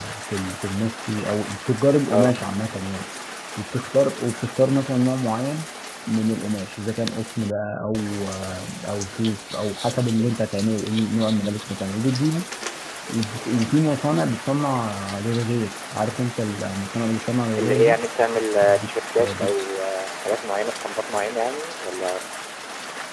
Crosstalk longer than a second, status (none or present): none